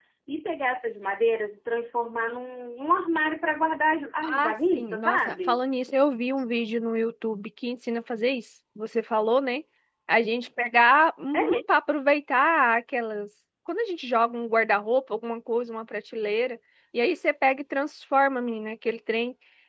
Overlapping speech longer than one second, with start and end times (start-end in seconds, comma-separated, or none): 4.2-5.6